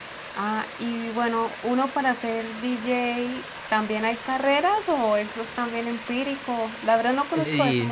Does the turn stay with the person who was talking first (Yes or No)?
No